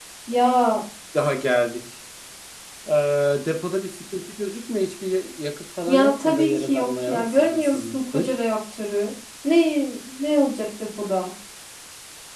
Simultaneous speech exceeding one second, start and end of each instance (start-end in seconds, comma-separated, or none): 5.9-8.3